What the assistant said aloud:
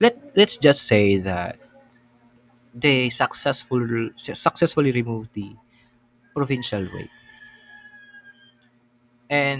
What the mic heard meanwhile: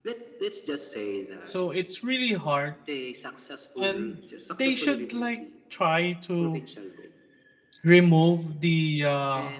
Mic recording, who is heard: both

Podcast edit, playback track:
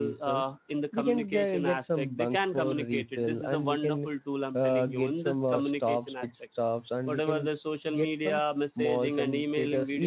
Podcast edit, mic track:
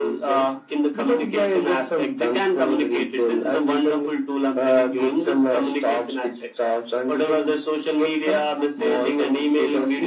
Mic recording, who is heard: echo only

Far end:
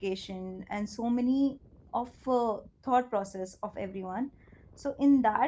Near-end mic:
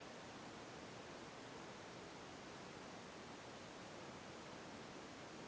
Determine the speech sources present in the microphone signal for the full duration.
neither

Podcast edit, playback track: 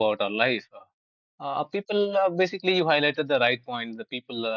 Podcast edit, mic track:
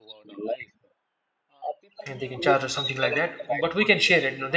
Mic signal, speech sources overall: both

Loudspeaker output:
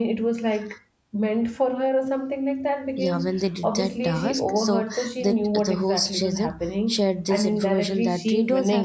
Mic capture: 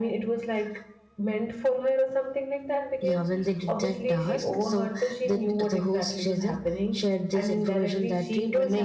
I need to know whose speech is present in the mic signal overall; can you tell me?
echo only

